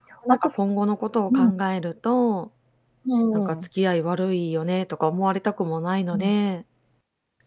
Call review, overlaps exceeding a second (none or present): none